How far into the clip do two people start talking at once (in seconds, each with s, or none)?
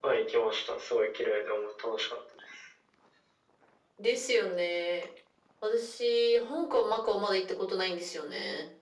none